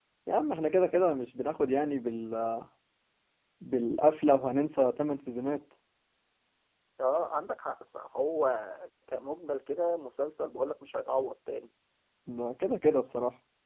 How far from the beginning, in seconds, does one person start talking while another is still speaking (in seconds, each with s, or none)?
none